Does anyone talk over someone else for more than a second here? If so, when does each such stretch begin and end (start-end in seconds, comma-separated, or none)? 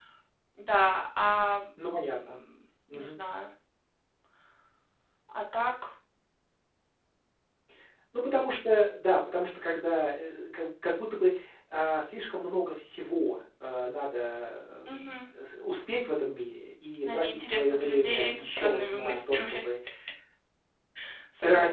17.0-19.6